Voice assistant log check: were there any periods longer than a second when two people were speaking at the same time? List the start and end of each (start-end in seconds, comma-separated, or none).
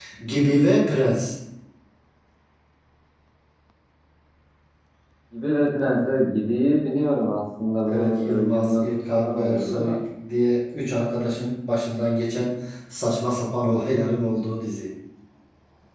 7.9-10.0